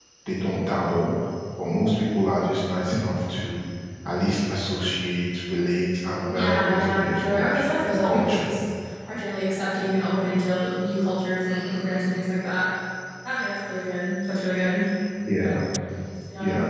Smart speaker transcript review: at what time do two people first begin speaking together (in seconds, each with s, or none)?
6.3 s